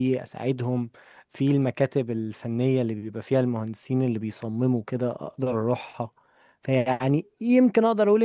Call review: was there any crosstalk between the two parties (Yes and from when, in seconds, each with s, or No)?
No